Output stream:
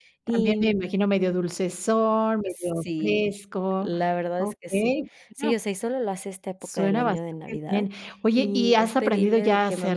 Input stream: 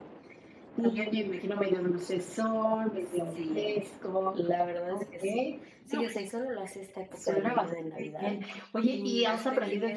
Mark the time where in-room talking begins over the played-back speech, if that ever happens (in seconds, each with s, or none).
none